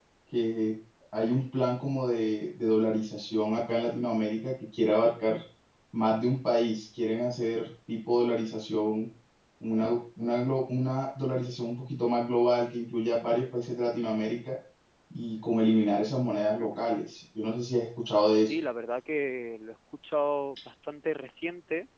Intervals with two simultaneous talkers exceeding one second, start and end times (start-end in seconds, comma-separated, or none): none